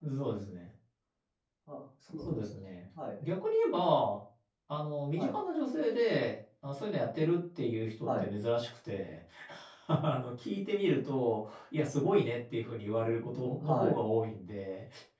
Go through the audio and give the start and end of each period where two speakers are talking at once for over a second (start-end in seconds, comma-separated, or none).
none